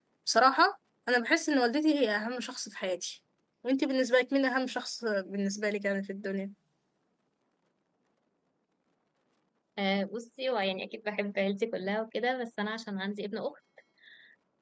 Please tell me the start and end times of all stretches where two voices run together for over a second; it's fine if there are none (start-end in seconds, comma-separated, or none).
none